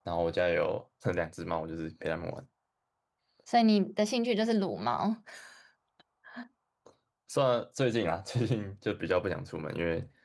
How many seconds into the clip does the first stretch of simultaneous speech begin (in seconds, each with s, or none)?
none